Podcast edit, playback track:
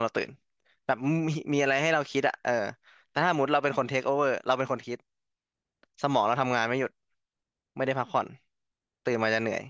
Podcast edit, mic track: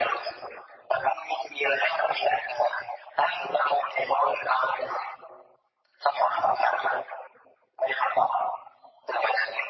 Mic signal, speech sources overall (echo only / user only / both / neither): echo only